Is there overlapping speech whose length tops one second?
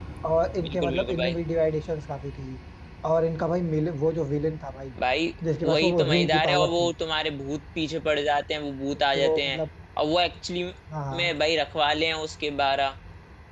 Yes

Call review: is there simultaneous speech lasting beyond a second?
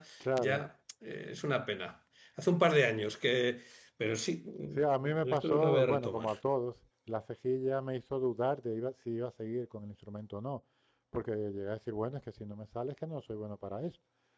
Yes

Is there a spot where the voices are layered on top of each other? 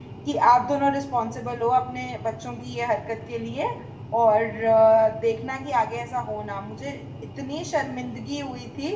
No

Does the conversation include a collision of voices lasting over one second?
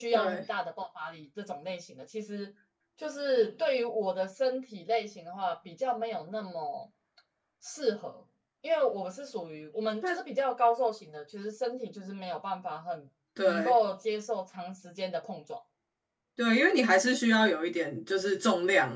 No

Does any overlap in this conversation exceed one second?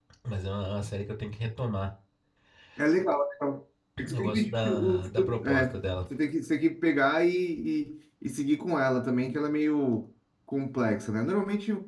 Yes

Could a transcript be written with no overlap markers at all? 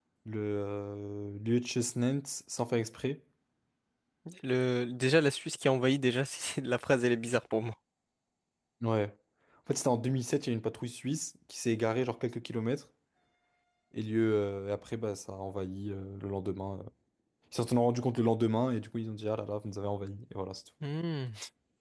Yes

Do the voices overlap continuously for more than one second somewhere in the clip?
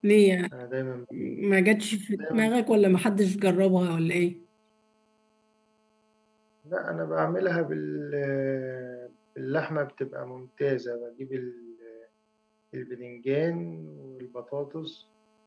No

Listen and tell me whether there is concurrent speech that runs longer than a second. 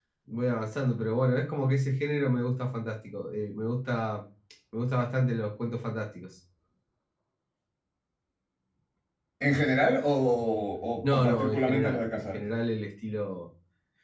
Yes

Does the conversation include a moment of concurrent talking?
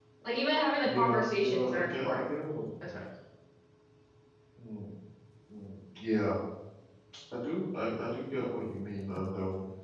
Yes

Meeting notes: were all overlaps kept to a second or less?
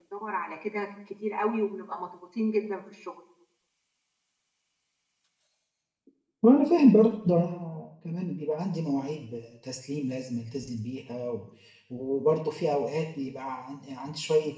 Yes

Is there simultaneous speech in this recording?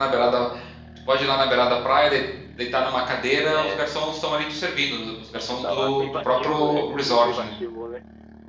Yes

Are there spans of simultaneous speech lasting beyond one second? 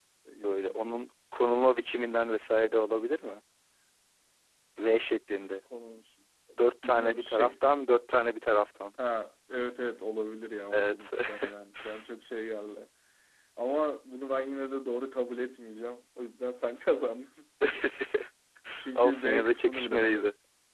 Yes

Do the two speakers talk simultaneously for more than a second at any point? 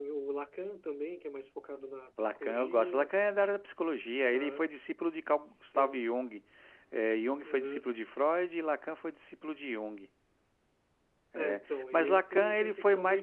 Yes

